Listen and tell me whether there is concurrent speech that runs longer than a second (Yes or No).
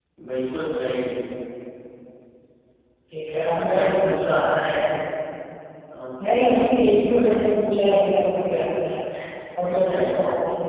Yes